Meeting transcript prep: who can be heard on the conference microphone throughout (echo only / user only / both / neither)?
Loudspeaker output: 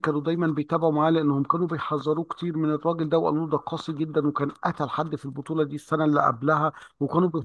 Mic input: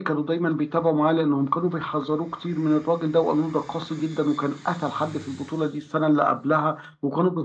echo only